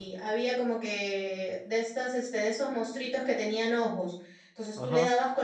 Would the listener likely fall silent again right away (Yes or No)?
Yes